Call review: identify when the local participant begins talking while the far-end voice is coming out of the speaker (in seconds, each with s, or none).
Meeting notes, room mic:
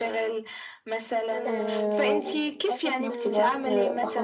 1.4 s